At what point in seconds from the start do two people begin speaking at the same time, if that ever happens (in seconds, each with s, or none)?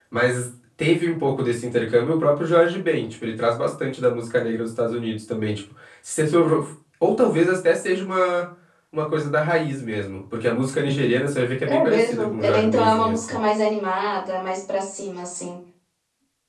11.7 s